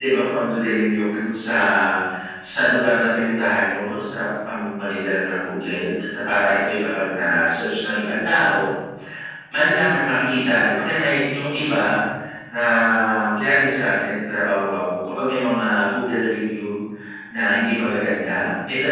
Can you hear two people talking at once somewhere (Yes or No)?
No